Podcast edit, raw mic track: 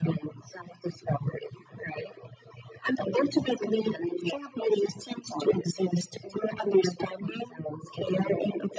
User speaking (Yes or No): No